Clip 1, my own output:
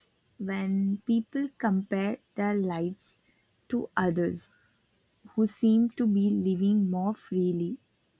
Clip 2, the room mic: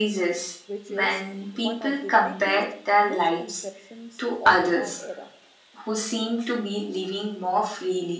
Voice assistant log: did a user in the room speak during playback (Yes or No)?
Yes